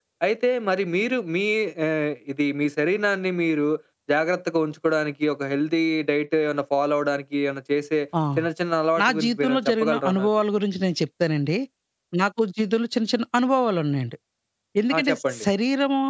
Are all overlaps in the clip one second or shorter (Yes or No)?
No